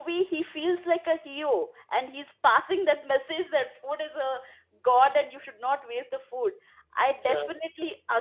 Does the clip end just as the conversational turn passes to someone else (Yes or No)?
No